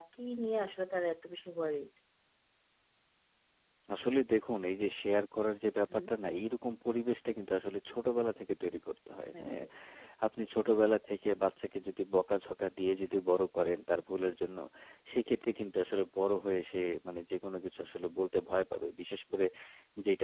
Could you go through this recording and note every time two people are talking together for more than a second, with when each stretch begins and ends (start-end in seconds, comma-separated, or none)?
none